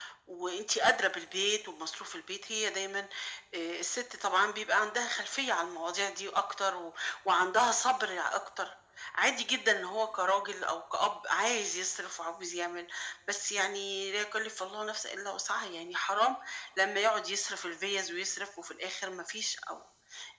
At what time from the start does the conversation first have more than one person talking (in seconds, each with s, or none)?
none